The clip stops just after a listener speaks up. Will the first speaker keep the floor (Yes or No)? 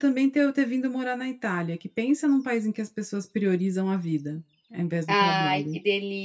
No